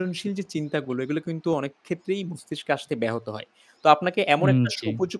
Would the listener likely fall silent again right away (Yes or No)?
Yes